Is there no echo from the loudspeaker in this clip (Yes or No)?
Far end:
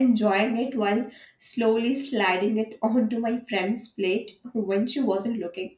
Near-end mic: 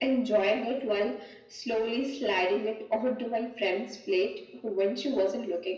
No